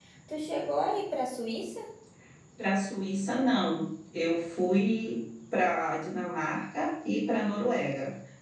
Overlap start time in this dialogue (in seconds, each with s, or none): none